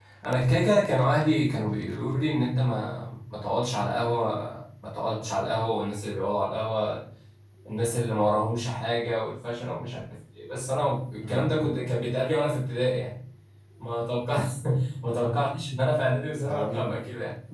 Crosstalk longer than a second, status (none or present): none